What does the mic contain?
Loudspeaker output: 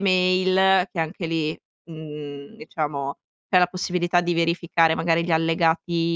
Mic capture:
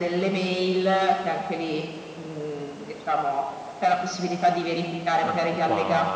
both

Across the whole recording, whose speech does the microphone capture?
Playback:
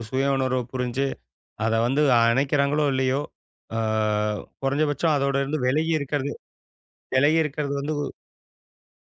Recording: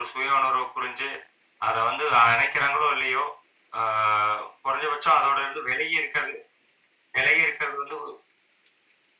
echo only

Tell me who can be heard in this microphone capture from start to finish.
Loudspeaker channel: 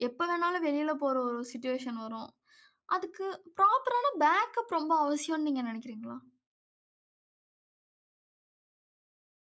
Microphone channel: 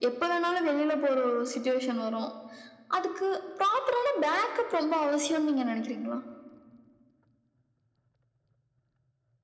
echo only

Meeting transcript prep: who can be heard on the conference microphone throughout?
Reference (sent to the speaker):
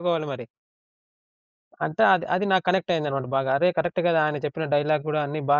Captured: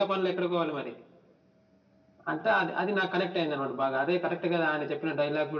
echo only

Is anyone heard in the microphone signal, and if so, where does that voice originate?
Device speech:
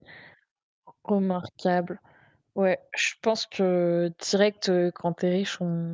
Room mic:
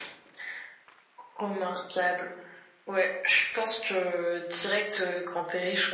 echo only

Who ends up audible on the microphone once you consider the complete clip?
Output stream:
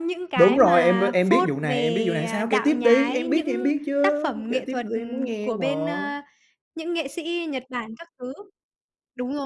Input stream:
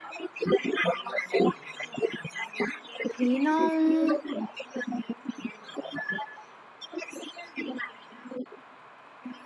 both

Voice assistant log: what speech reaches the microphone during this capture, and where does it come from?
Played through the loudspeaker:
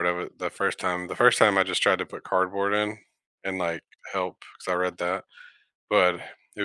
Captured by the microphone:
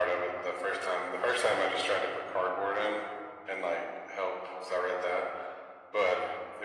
echo only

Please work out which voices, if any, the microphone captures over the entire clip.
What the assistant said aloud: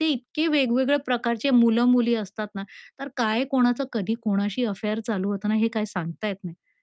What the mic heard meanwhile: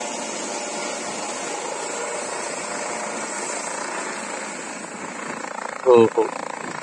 user only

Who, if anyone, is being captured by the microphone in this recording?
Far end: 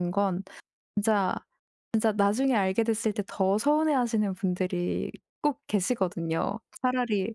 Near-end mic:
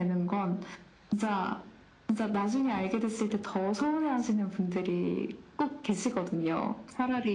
echo only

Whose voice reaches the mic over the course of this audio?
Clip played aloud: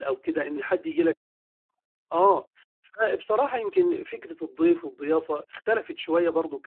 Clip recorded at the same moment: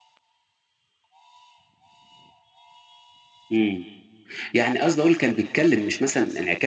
user only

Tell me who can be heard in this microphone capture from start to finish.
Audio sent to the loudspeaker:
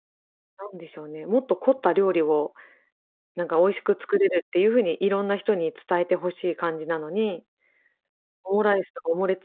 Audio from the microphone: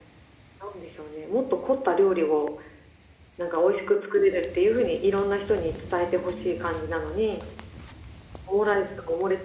echo only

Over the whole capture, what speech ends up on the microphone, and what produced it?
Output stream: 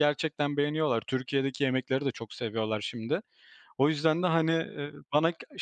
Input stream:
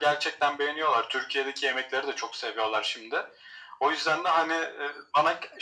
echo only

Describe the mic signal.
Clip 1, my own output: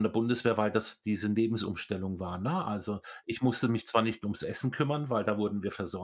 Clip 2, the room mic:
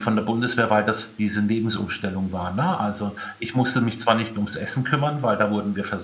echo only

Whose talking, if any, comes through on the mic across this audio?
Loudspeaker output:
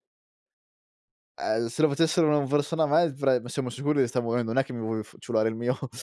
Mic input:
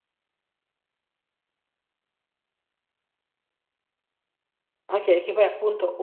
user only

